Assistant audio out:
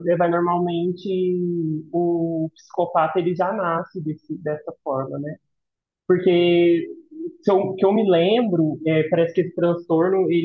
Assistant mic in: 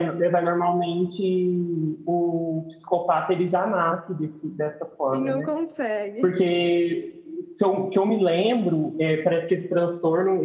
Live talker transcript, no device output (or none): E não consegue.